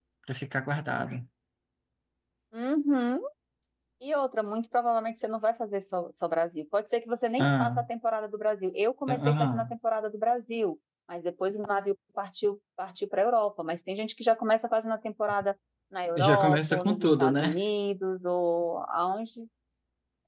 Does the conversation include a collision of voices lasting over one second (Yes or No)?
Yes